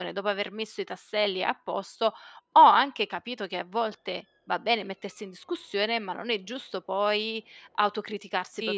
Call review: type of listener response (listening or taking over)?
taking over